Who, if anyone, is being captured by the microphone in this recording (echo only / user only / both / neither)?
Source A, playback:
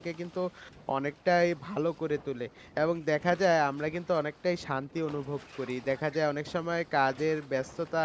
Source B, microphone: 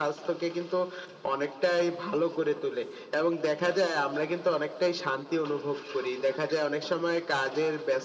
echo only